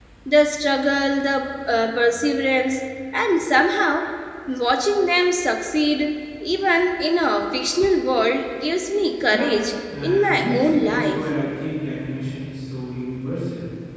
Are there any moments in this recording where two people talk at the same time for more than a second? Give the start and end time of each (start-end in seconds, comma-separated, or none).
10.0-11.2